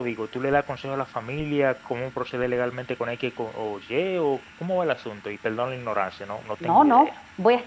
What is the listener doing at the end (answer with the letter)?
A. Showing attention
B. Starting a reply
B